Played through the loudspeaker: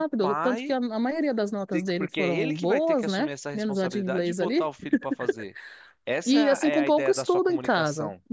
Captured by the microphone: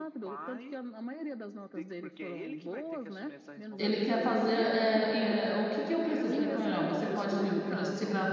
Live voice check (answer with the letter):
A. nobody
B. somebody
B